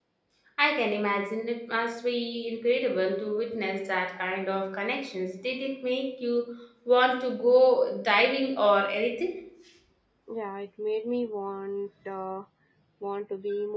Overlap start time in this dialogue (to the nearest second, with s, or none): none